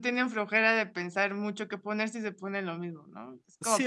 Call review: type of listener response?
taking over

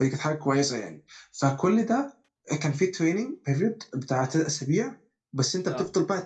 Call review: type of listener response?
listening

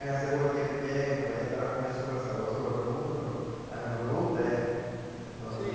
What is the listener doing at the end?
taking over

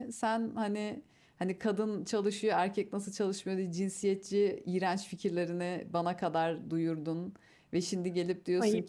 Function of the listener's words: listening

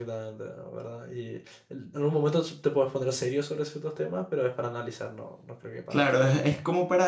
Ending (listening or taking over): taking over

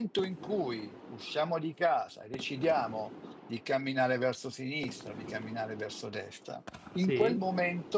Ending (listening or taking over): listening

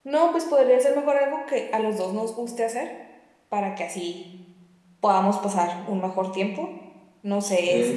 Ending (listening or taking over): listening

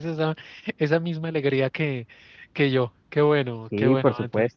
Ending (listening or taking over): taking over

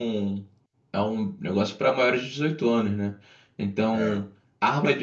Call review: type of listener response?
listening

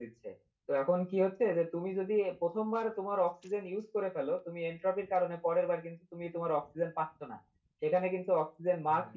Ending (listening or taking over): listening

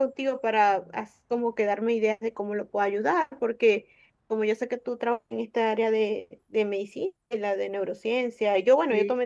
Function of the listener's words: listening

